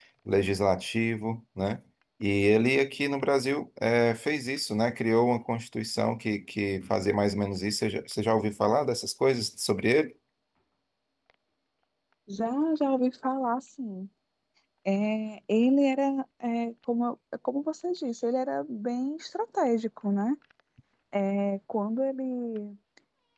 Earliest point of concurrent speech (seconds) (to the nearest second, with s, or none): none